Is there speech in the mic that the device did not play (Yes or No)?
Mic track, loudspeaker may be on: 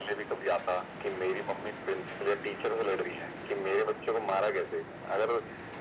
No